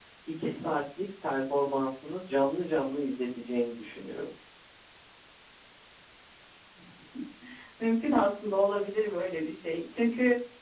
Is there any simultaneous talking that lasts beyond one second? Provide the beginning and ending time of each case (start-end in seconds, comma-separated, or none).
none